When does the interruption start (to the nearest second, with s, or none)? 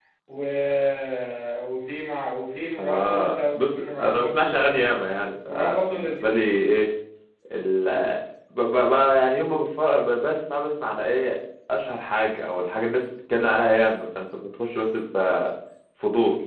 3 s